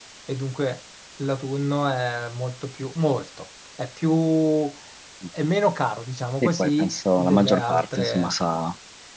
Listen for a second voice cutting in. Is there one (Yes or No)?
Yes